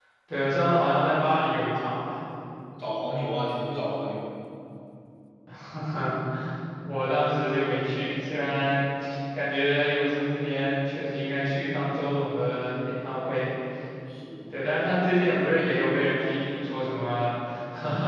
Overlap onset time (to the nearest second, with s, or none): none